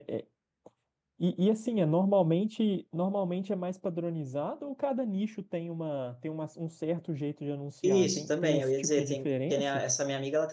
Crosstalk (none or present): present